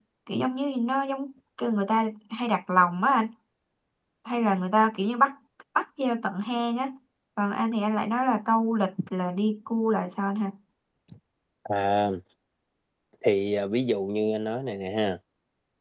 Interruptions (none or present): none